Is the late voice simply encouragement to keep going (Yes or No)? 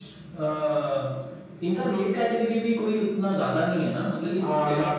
No